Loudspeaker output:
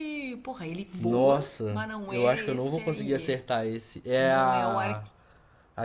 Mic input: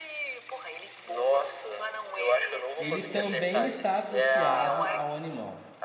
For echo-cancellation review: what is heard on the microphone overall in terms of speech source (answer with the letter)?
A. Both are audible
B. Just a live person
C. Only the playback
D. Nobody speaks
A